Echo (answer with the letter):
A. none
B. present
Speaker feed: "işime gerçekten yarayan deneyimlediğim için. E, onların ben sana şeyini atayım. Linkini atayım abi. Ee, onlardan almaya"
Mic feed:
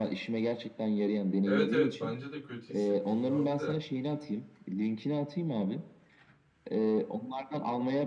B